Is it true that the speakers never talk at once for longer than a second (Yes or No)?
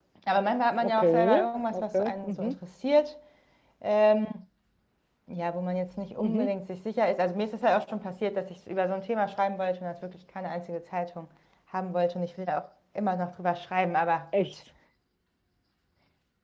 No